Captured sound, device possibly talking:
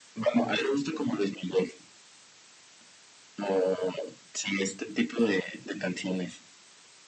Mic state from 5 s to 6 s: echo only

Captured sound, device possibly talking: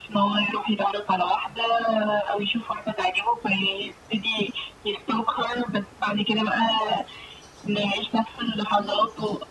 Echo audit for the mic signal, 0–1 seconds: echo only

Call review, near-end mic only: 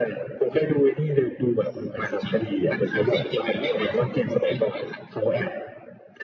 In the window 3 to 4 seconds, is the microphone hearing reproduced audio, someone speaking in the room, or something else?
echo only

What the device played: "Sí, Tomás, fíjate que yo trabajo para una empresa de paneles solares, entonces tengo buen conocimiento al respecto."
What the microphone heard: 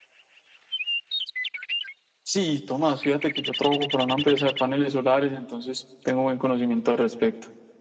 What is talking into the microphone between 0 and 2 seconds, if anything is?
neither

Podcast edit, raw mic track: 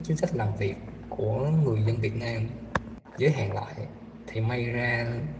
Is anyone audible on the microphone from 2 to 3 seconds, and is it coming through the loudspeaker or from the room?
user only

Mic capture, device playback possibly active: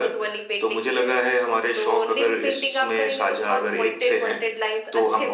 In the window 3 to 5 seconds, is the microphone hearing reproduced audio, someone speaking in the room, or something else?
echo only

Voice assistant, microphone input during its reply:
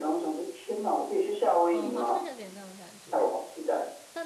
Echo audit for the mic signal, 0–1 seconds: echo only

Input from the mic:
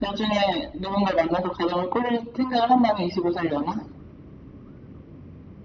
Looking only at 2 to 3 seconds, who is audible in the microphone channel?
echo only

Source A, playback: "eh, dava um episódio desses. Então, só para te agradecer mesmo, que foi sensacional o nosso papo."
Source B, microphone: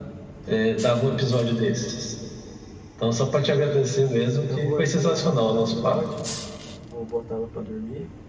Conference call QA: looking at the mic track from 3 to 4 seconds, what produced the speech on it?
echo only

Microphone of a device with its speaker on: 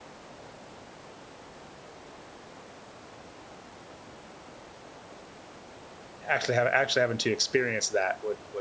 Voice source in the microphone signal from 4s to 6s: neither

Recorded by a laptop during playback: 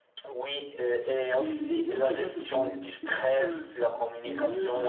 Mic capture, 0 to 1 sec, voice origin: echo only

